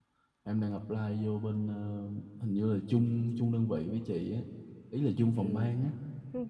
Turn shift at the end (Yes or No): Yes